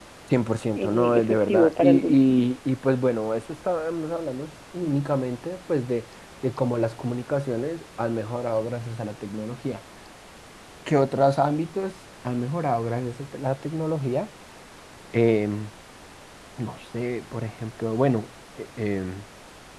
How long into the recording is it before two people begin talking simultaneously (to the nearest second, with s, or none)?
1 s